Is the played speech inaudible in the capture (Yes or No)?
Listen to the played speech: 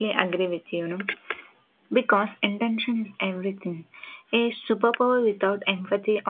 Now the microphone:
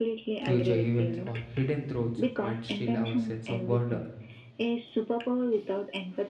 No